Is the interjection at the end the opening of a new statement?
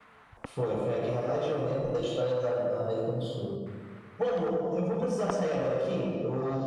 No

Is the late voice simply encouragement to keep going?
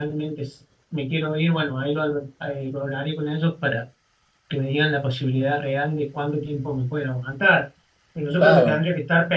Yes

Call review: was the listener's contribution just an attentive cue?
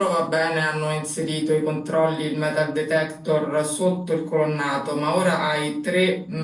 Yes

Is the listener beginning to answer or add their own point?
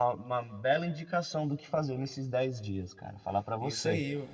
Yes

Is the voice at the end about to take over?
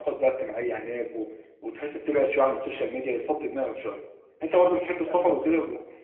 No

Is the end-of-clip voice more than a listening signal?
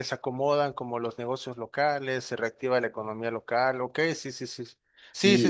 Yes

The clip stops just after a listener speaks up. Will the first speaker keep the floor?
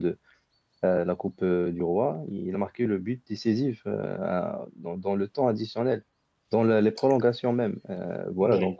Yes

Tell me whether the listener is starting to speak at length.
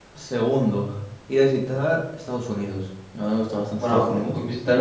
Yes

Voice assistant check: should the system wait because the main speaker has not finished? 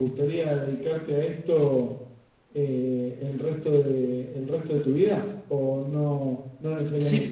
No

